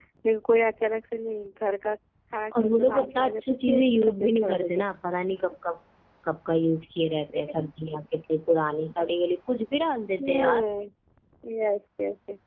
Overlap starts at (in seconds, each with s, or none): 2.6 s